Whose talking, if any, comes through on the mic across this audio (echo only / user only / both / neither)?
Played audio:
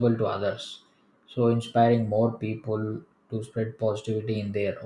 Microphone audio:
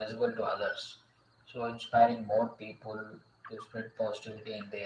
echo only